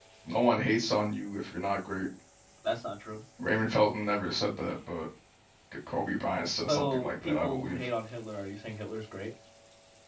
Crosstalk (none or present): present